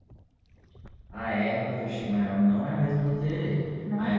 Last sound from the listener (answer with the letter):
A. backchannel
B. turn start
A